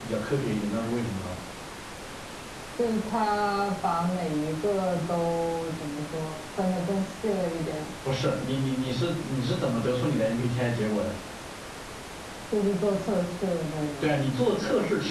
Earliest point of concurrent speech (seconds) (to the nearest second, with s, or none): none